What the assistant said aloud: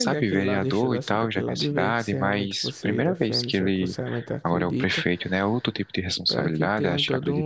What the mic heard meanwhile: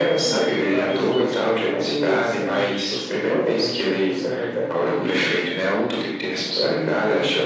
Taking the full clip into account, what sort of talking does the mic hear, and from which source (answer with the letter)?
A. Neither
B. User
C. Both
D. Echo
D